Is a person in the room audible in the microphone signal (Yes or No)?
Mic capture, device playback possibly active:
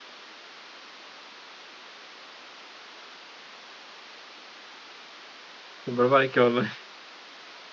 Yes